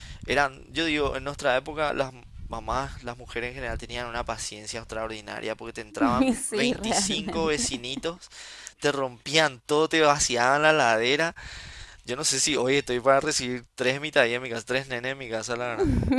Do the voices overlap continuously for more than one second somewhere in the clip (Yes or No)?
Yes